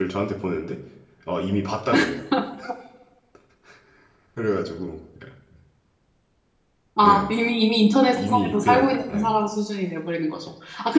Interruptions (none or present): present